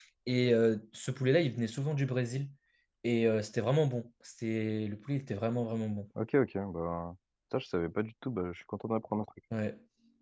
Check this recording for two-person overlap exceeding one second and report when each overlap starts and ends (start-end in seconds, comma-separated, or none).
none